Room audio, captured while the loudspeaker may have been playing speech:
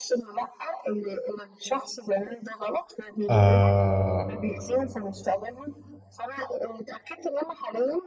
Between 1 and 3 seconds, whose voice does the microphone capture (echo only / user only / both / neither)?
echo only